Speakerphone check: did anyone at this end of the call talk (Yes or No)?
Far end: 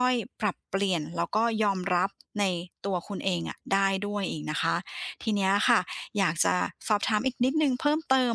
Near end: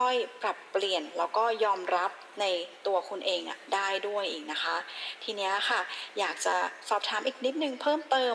No